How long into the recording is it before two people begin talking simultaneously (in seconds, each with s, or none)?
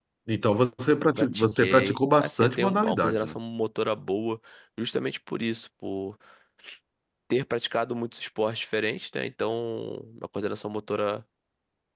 1.2 s